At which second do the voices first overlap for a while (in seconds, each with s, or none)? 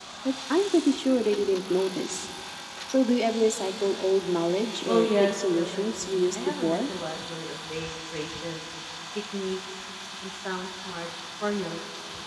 4.9 s